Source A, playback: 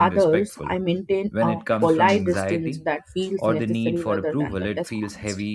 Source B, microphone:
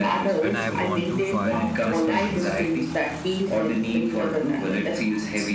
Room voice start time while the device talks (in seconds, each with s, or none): 0.4 s